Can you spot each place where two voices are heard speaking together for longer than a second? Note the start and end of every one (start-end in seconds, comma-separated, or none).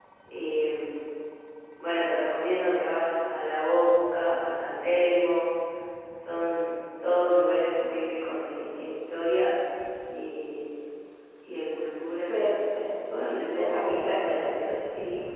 13.2-14.7